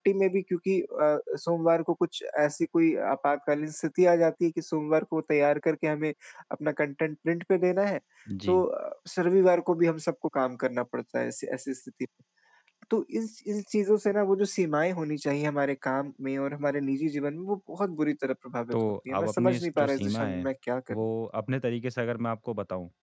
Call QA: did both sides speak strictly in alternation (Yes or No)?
No